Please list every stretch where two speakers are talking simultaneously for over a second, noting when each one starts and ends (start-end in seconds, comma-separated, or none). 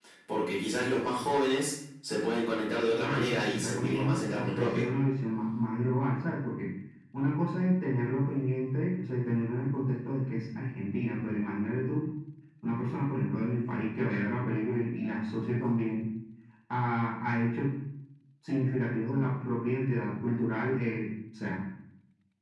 2.9-4.8